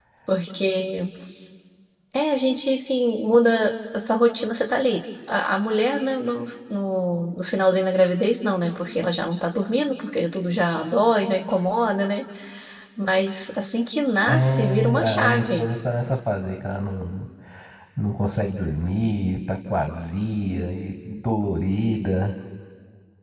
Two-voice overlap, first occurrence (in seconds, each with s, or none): 14.3 s